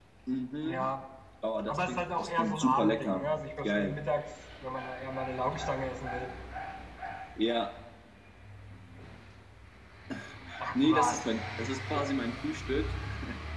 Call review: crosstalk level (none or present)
present